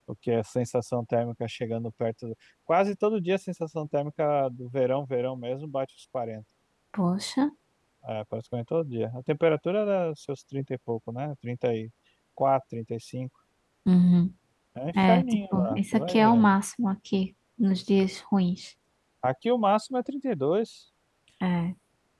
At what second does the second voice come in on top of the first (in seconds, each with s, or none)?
15.1 s